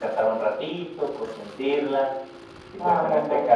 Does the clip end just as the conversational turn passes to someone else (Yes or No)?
No